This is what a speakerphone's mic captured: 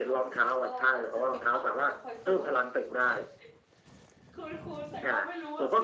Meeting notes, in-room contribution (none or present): present